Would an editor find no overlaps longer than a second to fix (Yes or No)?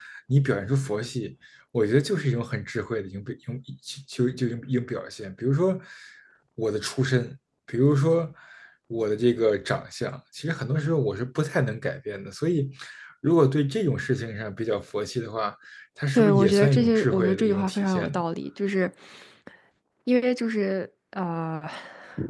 No